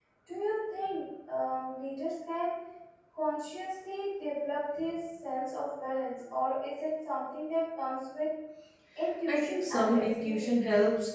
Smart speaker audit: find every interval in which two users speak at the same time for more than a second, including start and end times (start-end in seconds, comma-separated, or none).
9.3-10.6